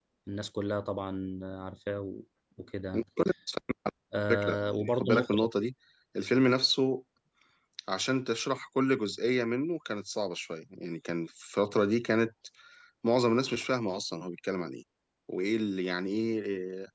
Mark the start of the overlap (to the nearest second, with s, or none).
4 s